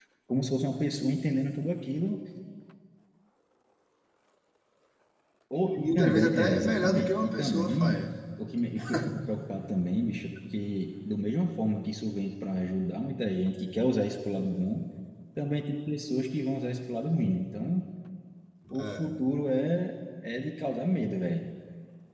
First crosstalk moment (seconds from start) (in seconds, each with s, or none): 5.8 s